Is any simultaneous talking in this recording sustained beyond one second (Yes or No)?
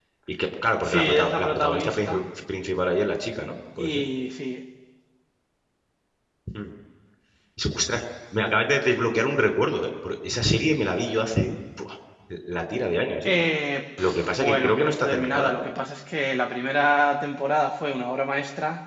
Yes